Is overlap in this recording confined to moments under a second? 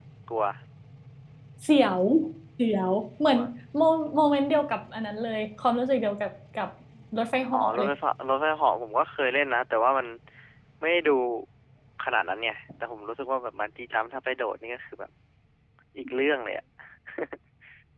Yes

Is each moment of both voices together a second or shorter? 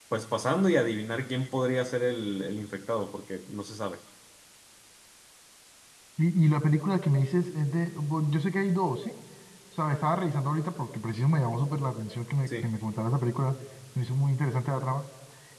Yes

